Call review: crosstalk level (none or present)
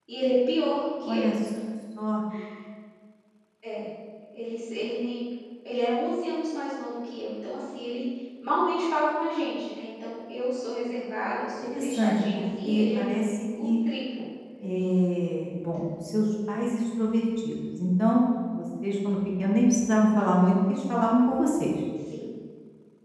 present